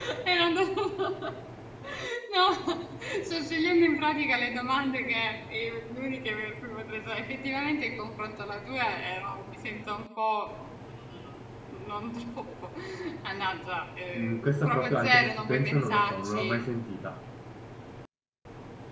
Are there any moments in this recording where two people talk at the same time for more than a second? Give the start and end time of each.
14.2-16.6

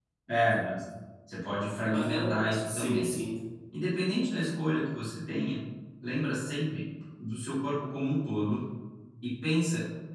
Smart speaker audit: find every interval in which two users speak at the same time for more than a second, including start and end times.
1.9-3.1

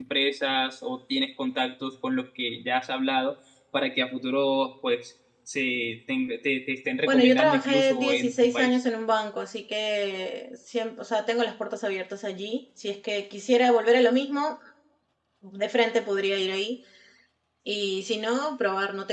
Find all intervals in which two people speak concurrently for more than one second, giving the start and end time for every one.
7.1-8.8

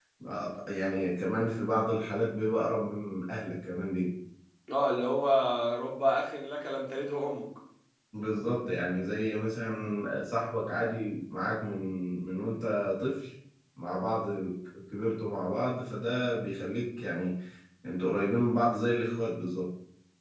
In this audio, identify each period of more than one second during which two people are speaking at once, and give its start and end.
none

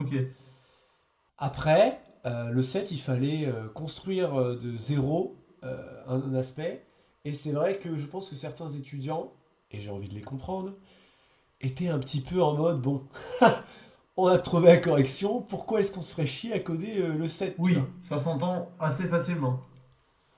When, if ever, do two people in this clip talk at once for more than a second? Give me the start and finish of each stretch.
none

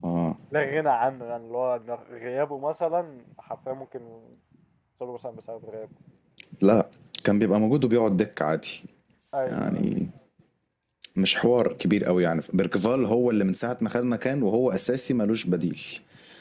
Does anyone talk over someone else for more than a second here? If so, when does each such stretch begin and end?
none

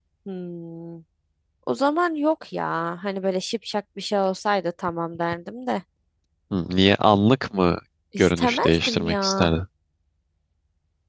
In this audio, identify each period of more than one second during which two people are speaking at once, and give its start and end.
8.2-9.5

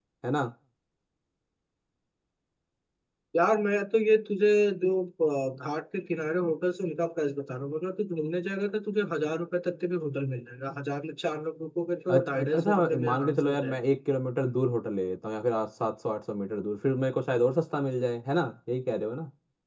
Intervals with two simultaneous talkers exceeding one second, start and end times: 12.1-13.8

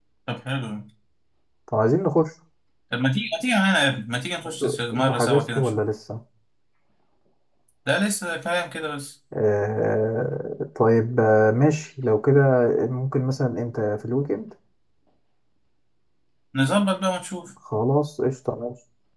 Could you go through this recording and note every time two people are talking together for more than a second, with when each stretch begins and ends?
4.6-5.8

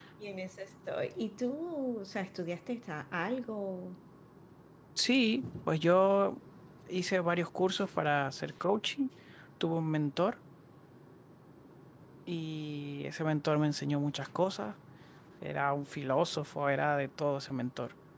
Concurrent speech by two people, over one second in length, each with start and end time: none

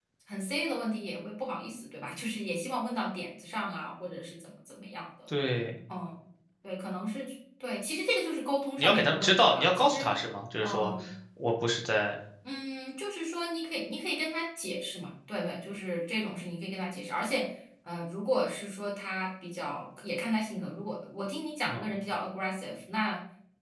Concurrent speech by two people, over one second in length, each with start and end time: 8.8-10.1

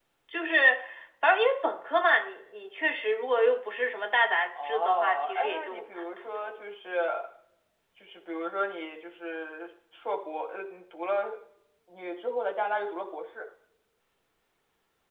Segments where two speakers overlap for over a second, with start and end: 4.6-6.6

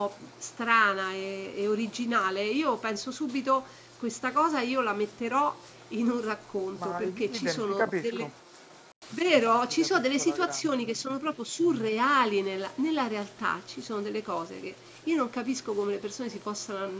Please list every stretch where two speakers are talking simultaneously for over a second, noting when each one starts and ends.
6.8-8.3, 9.4-10.8

